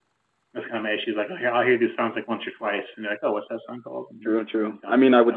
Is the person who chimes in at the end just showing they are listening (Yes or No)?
No